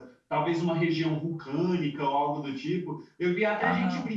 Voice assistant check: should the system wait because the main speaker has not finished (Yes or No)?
Yes